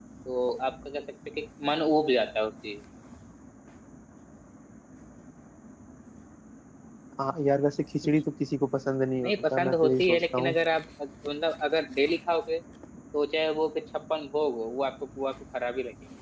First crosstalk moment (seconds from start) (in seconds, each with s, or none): 9.2 s